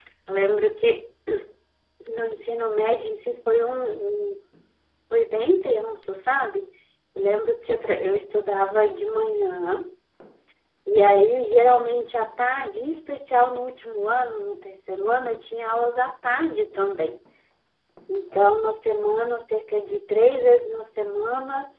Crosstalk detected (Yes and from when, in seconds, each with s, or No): No